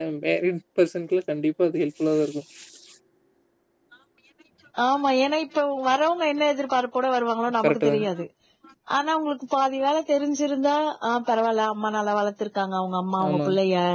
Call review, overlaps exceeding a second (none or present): none